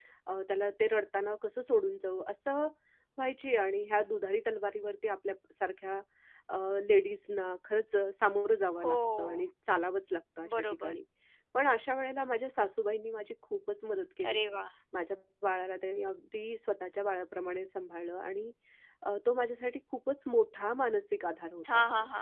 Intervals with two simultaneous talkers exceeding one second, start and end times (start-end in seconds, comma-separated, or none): none